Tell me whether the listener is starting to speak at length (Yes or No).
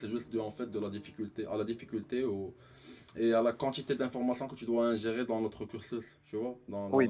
Yes